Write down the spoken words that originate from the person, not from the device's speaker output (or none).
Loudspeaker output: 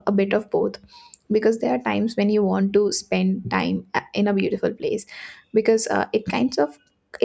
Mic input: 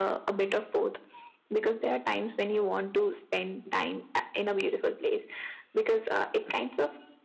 none